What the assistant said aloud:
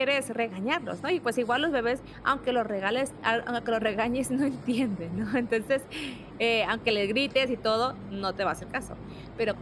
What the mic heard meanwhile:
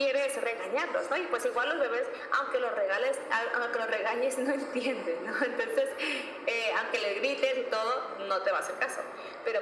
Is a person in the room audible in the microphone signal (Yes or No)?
No